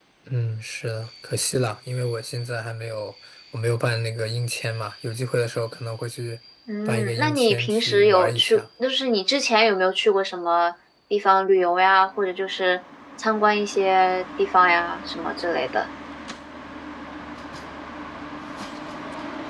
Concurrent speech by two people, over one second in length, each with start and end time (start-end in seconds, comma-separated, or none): 6.9-8.6